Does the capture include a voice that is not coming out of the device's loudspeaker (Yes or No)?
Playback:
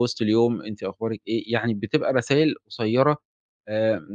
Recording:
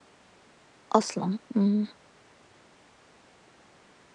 Yes